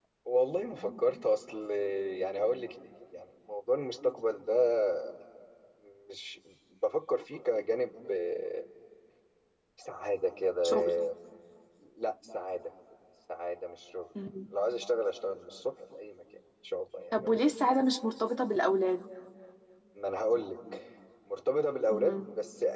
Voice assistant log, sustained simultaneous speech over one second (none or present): none